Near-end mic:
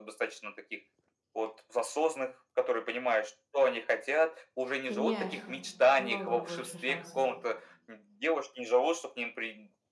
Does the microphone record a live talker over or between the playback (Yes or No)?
Yes